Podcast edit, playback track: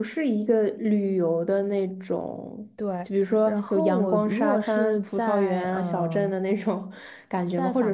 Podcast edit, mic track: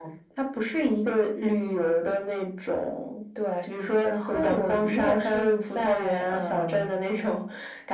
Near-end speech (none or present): none